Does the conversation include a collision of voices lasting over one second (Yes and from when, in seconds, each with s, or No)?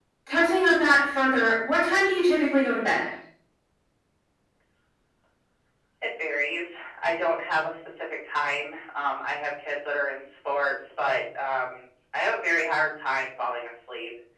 No